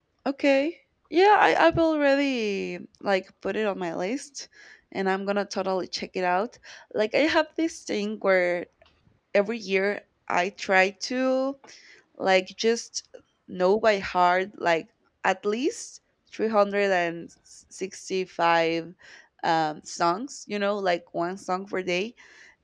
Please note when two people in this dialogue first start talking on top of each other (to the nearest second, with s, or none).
none